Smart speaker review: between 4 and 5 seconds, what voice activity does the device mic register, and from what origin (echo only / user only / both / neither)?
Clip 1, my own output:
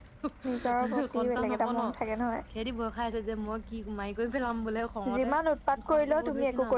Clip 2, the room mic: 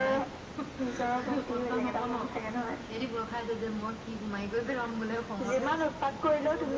echo only